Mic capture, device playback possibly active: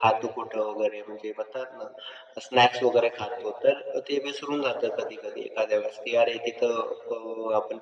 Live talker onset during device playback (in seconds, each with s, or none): none